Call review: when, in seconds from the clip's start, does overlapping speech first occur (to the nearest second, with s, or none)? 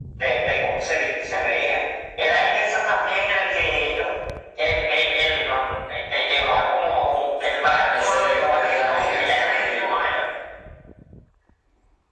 8 s